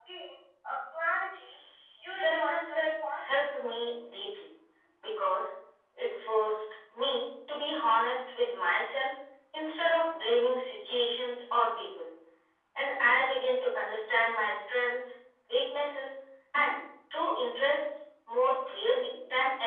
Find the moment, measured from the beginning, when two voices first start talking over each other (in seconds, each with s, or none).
2.0 s